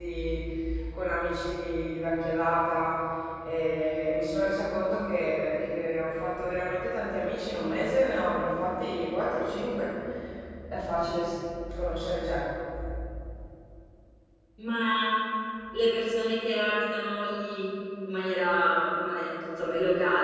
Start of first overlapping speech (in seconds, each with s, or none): none